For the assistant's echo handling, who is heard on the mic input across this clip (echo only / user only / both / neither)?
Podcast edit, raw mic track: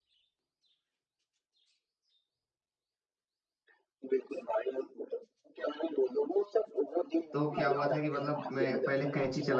both